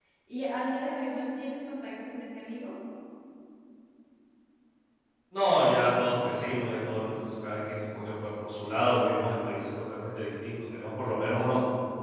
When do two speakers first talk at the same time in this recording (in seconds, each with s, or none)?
none